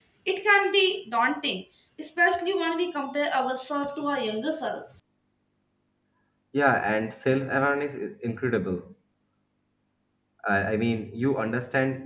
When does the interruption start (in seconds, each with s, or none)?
none